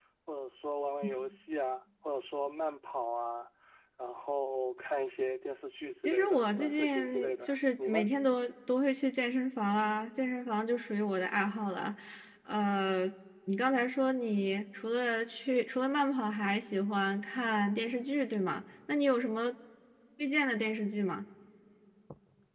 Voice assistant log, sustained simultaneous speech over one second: present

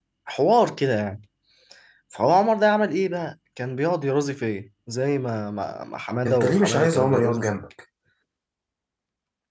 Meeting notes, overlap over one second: present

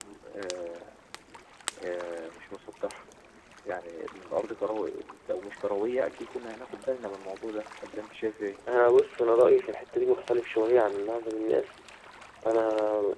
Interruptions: none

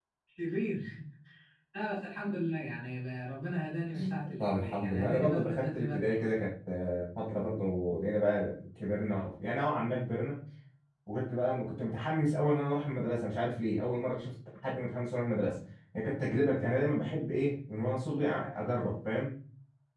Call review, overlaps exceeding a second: present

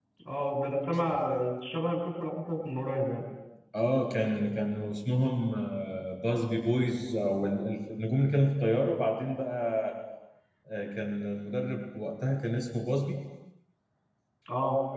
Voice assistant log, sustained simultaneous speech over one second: none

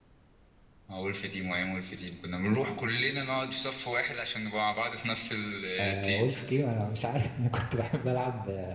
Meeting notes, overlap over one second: none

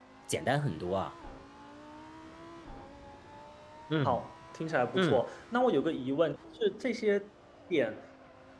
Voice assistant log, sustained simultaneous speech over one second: none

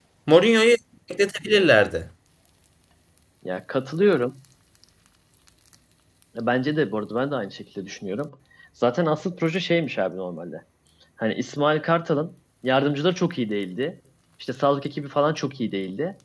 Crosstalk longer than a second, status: none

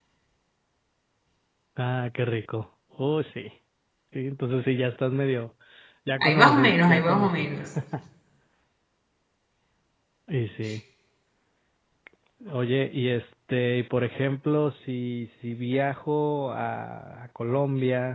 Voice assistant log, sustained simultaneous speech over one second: present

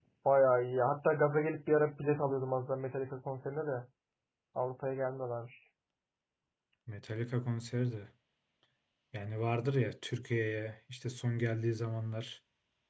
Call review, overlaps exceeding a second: none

